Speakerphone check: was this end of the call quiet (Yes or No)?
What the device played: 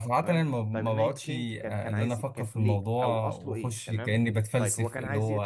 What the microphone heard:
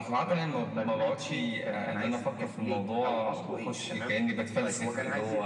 Yes